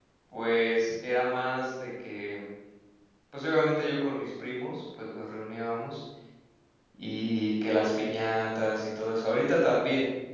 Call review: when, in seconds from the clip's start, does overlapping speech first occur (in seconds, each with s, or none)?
none